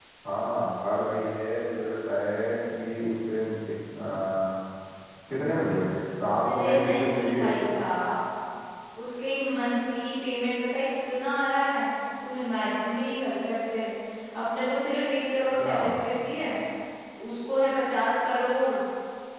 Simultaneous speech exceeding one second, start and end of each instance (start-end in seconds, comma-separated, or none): 6.4-7.6